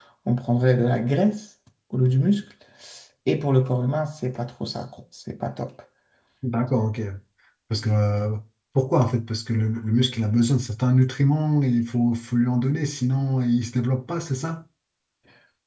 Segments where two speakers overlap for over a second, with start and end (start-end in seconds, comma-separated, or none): none